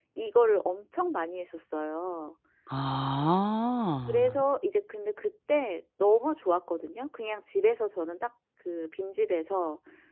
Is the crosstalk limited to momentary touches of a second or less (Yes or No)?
Yes